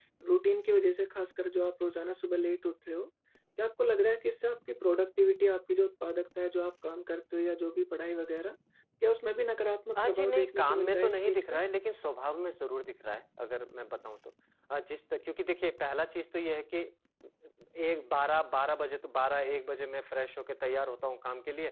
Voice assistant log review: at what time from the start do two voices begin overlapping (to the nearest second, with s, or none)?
10 s